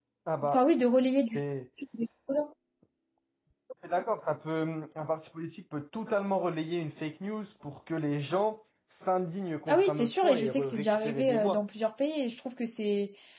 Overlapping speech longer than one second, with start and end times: 9.7-11.6

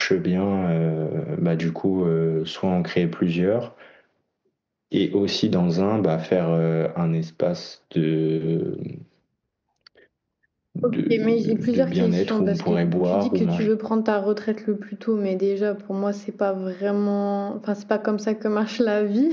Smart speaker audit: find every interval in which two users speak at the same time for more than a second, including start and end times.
10.8-13.7

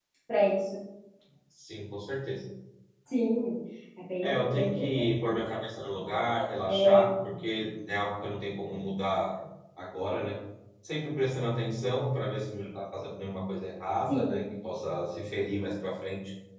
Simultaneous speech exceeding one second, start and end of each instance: 4.2-5.4

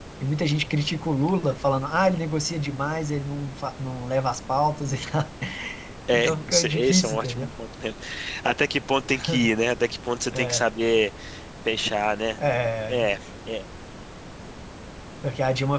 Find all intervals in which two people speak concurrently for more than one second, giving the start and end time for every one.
6.1-7.5

